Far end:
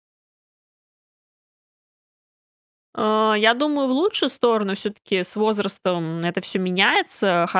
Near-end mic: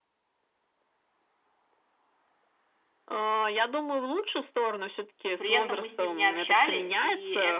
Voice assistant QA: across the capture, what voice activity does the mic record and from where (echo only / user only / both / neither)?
both